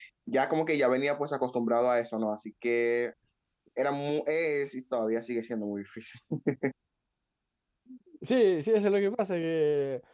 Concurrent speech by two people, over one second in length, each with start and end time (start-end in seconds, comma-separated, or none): none